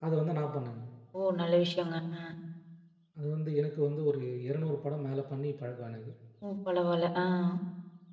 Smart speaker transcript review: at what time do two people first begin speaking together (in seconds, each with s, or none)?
none